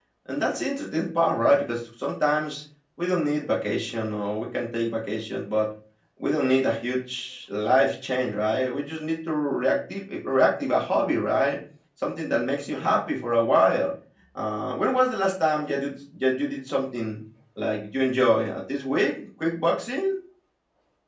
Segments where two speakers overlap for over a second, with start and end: none

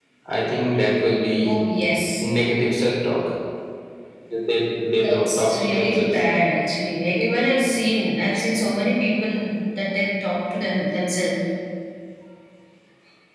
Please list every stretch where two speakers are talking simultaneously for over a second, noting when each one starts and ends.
4.9-6.2

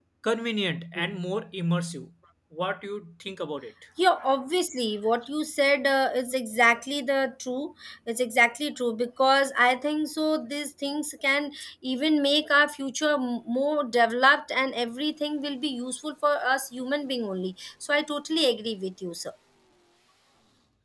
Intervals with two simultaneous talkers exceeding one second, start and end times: none

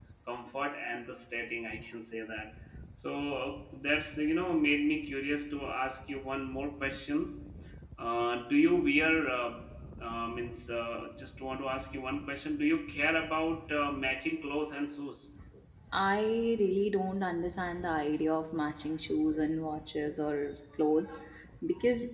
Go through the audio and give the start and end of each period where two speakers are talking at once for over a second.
none

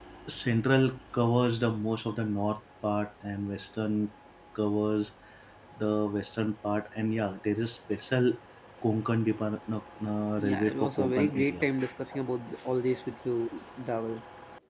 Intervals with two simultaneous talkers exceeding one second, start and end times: 10.4-11.7

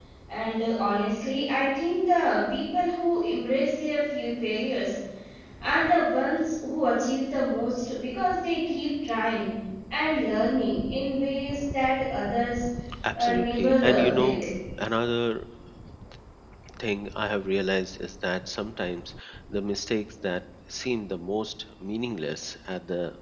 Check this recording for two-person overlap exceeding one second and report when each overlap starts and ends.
13.1-14.4

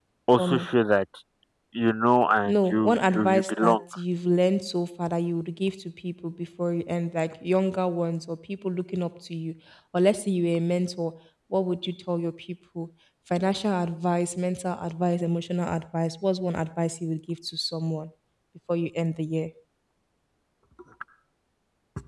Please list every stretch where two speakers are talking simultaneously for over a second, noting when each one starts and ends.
2.5-3.8

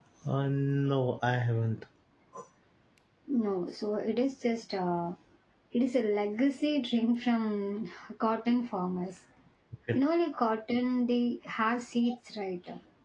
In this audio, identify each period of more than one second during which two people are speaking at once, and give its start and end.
none

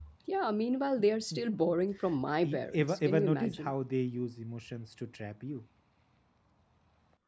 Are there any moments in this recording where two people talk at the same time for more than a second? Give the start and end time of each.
2.4-3.7

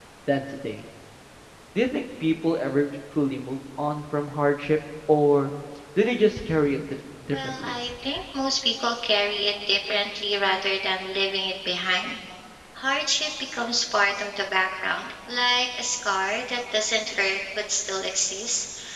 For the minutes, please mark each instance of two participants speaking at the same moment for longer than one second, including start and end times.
none

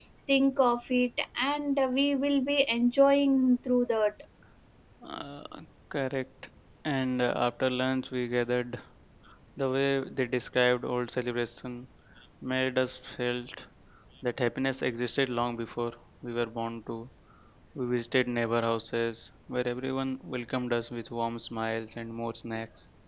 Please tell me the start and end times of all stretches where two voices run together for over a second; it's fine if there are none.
none

